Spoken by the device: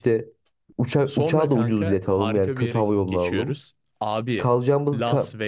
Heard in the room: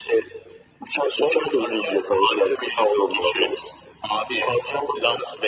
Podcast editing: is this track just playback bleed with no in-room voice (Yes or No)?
Yes